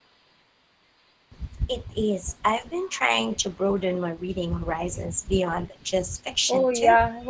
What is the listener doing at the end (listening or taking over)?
taking over